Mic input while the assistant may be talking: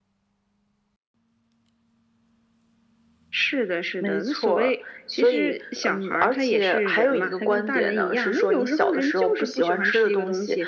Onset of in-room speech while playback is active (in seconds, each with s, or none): none